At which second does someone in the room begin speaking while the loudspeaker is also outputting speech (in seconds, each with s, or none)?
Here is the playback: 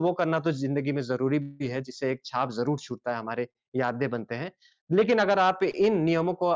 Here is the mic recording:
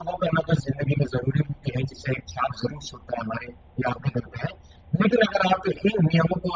none